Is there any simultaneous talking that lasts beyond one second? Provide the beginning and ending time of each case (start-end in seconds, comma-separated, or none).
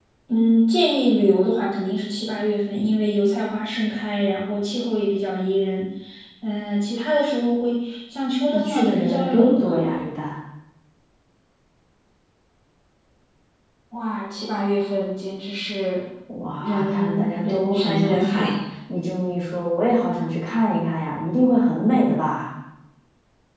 8.5-9.8, 16.6-18.5